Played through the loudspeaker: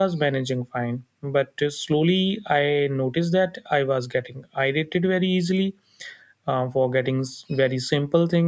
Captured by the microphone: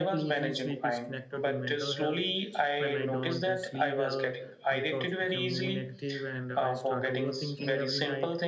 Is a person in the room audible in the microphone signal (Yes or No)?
Yes